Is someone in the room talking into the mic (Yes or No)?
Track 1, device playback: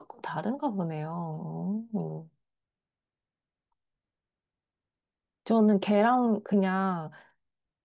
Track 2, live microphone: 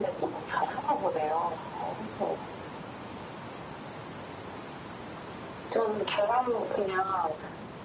No